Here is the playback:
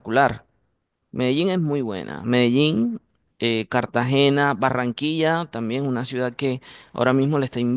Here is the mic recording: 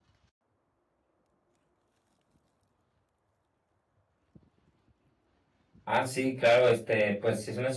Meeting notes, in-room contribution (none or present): present